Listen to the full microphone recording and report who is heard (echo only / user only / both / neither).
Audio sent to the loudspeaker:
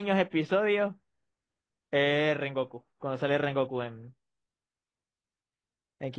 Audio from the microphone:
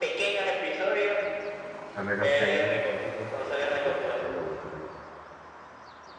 both